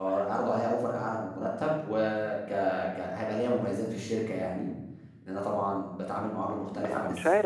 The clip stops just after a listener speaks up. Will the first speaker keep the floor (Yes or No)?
No